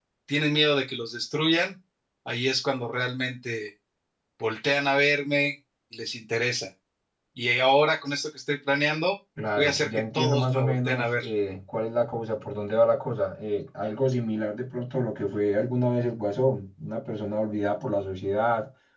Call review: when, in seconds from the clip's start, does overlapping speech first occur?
9.4 s

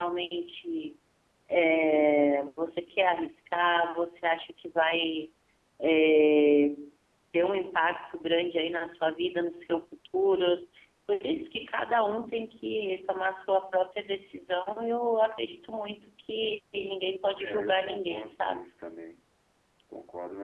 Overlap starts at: 17.4 s

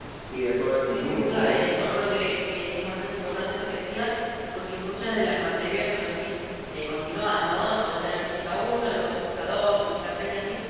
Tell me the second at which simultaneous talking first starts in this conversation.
0.9 s

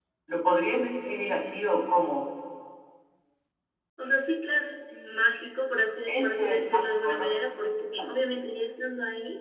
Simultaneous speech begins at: 6.1 s

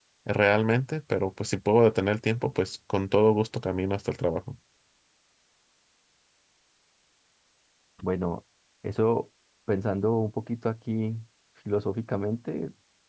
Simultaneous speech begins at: none

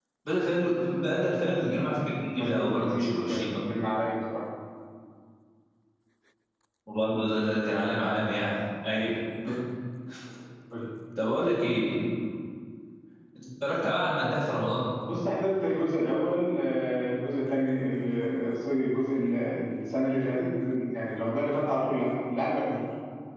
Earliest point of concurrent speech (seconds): 2.3 s

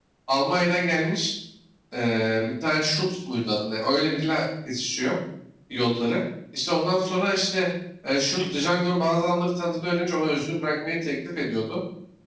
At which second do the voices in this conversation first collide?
none

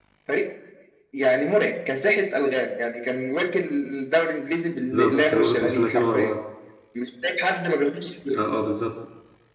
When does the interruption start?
4.9 s

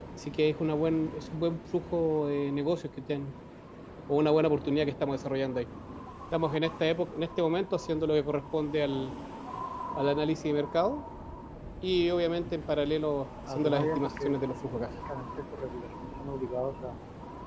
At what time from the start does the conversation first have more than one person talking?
13.4 s

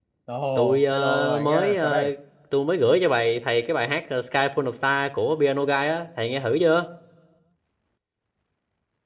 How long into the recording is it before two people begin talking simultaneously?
0.6 s

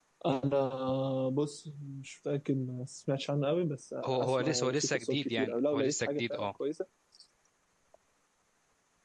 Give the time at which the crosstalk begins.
4.0 s

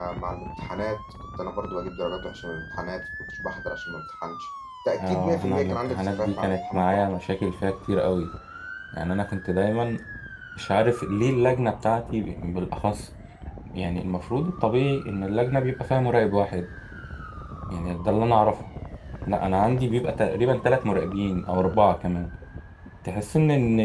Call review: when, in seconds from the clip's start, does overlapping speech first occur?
5.0 s

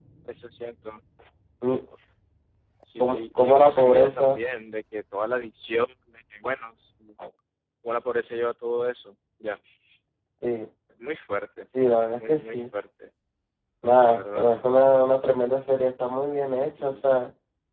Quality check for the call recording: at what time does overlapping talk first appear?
3.0 s

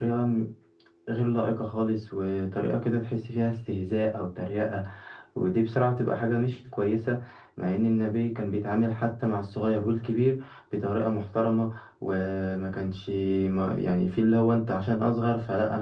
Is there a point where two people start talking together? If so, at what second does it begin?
none

